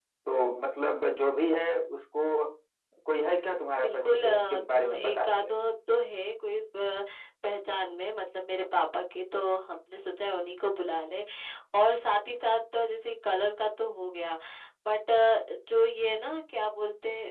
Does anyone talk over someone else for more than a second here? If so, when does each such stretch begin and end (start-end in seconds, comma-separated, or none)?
3.8-5.4